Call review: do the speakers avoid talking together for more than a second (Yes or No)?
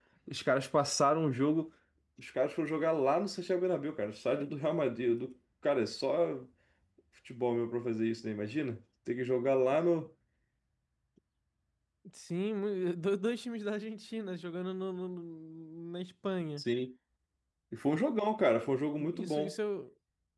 Yes